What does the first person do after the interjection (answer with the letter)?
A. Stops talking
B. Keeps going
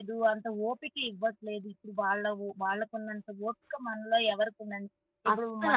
B